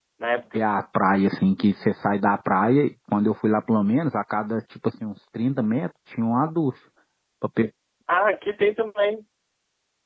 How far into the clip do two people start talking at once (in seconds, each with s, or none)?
none